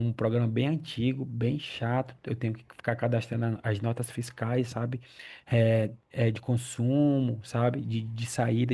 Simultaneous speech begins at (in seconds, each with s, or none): none